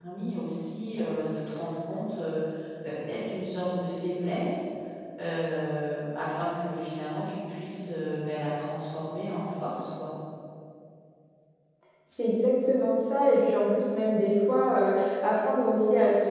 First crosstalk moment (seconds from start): none

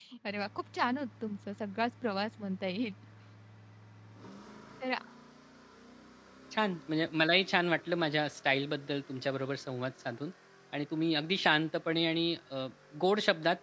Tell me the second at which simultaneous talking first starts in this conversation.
none

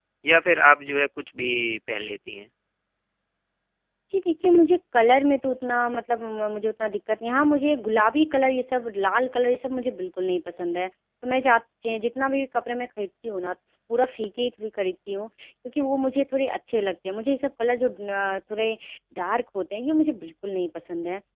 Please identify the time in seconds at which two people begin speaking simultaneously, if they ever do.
none

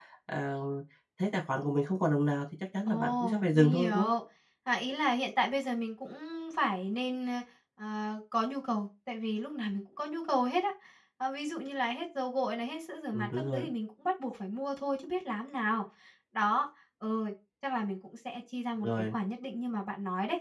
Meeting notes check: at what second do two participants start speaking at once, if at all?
2.9 s

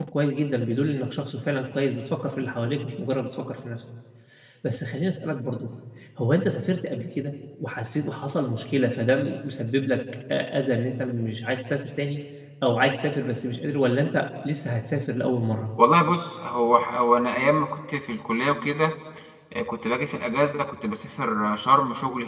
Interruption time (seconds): none

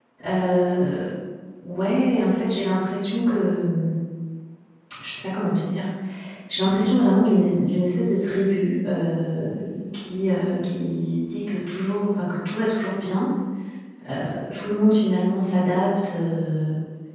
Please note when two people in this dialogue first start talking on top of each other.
none

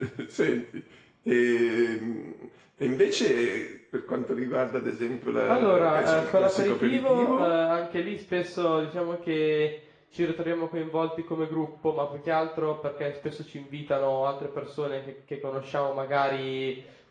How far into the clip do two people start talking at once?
5.5 s

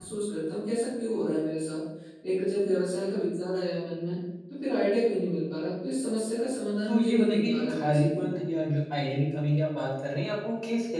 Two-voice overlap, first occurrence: 6.9 s

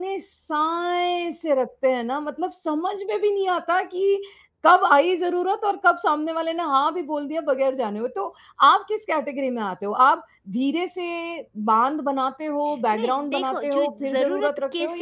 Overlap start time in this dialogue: 12.7 s

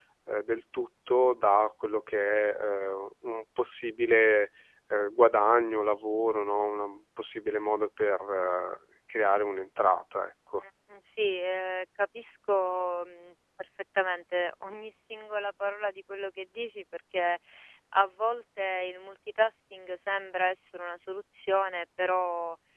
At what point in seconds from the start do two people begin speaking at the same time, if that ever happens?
none

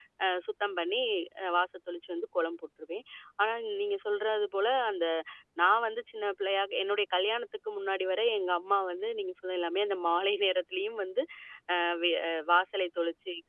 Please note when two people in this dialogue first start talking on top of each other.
none

